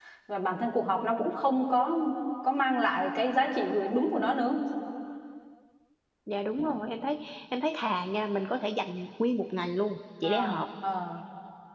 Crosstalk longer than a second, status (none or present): none